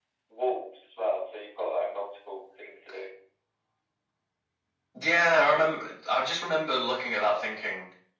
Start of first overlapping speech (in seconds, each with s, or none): none